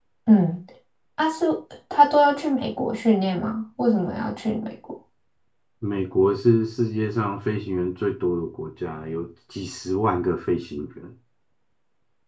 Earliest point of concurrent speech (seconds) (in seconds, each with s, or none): none